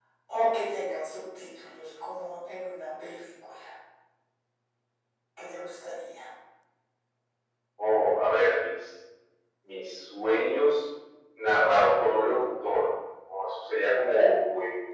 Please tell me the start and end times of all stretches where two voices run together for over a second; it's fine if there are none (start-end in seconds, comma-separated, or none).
none